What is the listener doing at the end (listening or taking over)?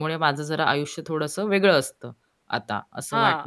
taking over